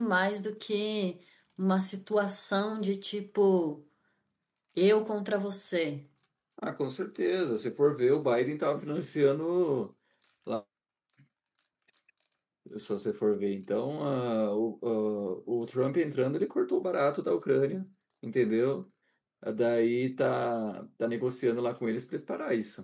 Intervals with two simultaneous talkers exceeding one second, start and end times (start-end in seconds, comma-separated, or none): none